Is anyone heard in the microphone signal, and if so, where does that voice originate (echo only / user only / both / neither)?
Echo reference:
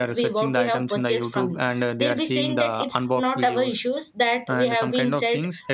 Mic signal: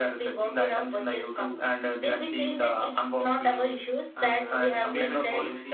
both